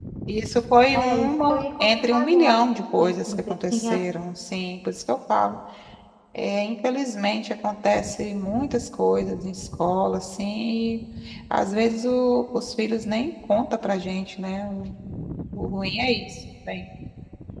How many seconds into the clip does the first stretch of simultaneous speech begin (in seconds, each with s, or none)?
0.9 s